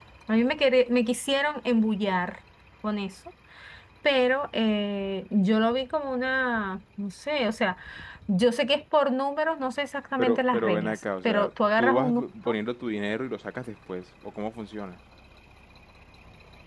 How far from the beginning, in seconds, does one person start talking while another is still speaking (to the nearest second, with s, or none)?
10 s